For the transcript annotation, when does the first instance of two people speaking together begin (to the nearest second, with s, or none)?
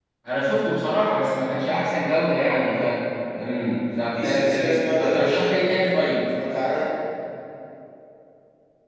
4 s